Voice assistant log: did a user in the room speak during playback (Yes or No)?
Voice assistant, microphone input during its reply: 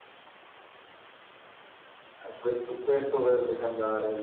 No